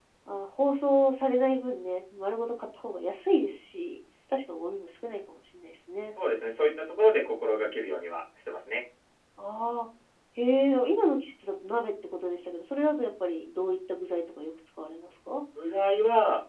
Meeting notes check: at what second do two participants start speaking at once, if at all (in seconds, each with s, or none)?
none